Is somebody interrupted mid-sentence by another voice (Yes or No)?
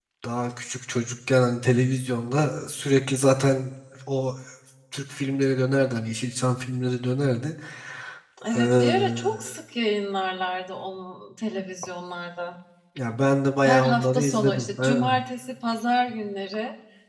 Yes